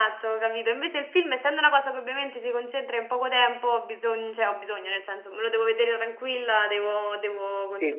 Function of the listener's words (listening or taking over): taking over